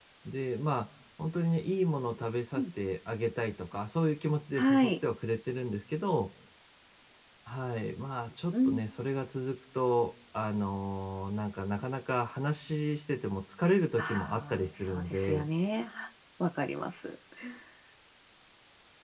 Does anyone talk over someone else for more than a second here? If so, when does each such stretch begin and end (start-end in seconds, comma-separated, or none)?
14.0-15.5